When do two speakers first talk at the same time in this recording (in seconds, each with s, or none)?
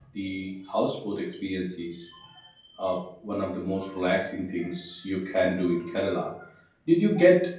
none